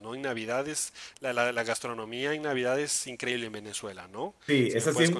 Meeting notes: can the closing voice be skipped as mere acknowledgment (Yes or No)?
No